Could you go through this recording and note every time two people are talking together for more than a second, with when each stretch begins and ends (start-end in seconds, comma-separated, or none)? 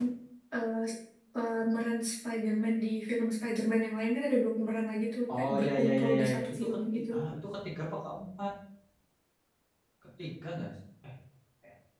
5.4-7.0